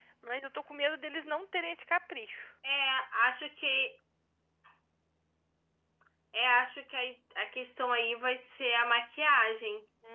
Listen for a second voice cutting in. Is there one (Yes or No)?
No